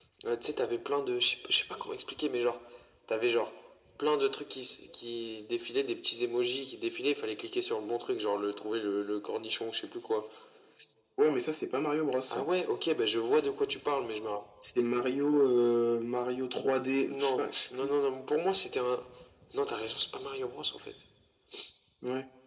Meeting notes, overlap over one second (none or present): none